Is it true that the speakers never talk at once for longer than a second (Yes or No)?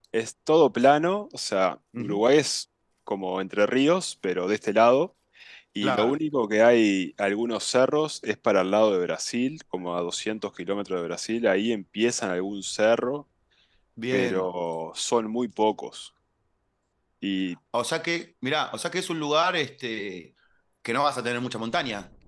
Yes